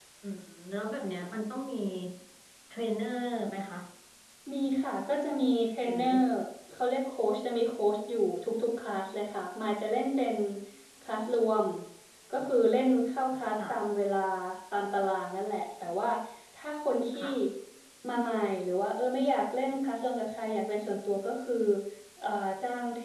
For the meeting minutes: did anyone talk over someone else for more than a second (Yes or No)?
No